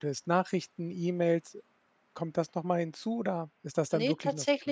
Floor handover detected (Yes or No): Yes